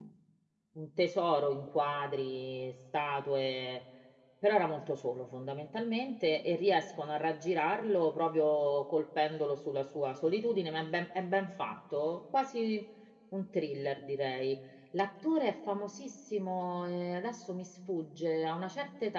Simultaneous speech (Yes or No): No